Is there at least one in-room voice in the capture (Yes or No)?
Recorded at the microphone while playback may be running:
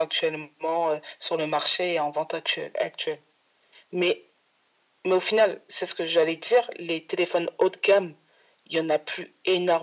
No